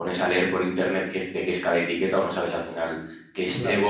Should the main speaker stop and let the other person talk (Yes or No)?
No